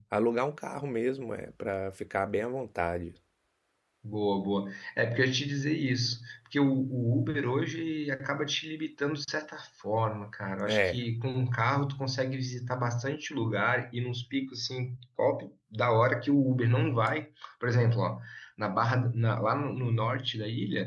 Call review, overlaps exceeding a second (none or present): none